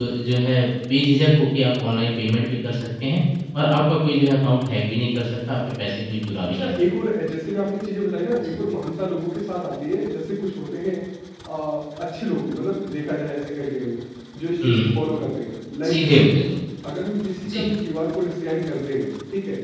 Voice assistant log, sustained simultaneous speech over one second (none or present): none